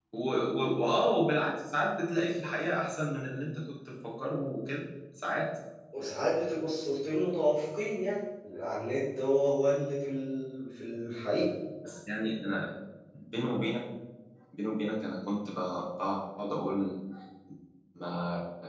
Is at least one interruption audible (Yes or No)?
No